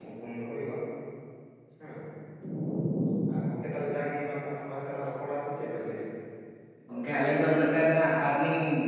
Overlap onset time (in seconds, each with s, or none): none